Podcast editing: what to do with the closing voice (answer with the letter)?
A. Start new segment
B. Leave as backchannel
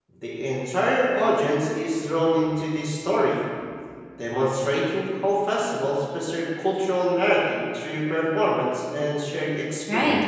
A